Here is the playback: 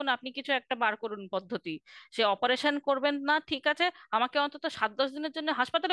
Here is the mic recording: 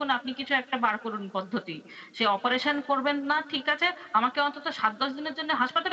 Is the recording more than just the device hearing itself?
No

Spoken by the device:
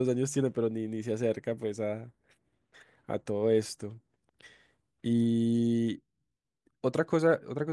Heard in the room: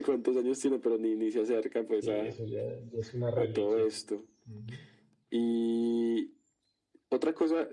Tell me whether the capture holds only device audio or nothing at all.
No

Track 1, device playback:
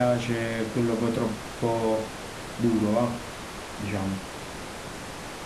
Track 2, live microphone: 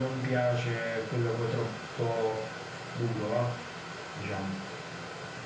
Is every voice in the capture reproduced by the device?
Yes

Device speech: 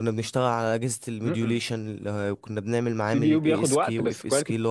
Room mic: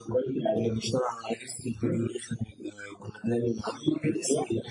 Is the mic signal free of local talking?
Yes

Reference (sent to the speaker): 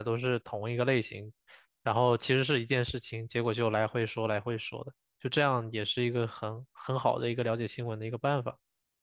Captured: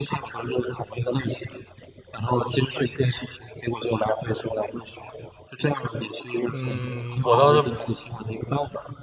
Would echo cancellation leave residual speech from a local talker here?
Yes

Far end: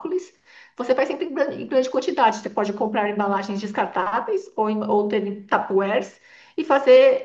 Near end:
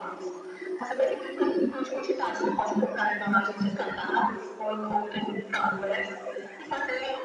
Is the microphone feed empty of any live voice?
Yes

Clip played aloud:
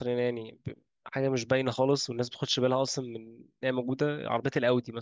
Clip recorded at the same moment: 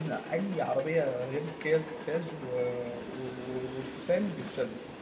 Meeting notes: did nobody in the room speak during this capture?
No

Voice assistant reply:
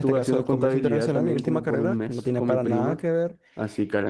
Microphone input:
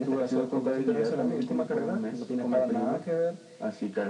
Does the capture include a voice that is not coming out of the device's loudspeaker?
No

